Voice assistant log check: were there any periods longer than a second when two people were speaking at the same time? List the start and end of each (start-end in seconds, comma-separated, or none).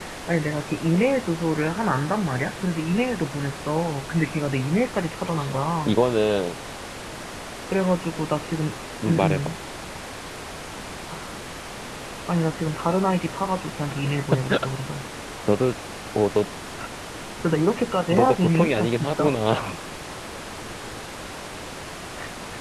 18.1-19.3